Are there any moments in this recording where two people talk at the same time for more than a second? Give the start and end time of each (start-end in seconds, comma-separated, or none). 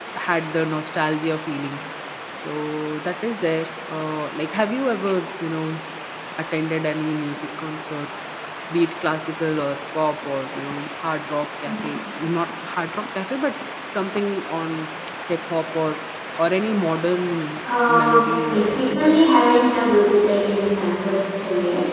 17.9-19.3